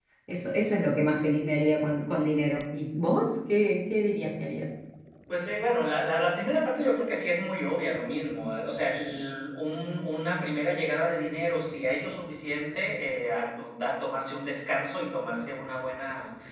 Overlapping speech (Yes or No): No